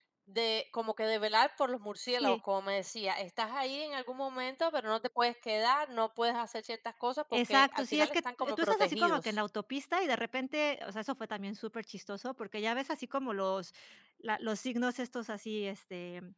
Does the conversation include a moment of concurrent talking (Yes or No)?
Yes